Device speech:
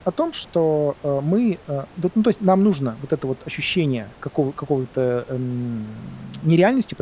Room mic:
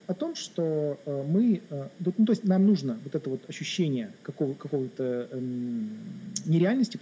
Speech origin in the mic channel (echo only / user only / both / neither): echo only